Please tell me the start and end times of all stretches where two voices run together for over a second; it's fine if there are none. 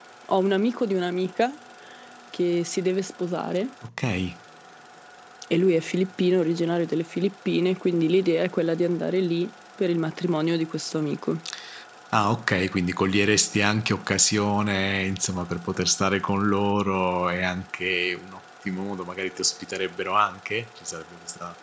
none

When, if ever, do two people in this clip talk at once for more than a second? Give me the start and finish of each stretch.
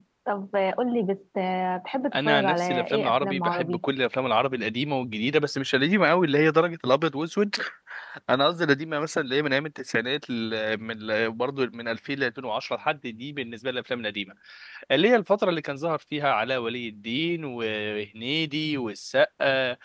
2.1-3.8

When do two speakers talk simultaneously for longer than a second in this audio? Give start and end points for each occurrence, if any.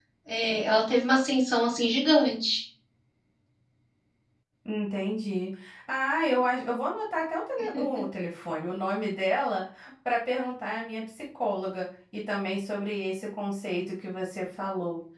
none

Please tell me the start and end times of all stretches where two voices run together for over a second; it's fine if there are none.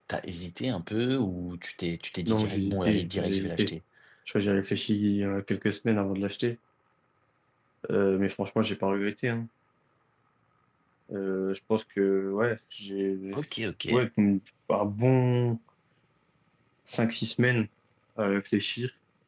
2.3-3.7

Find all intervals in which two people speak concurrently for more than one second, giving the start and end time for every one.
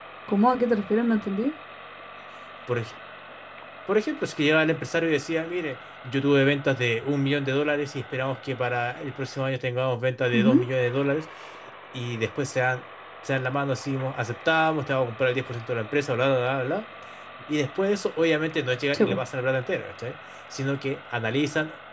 none

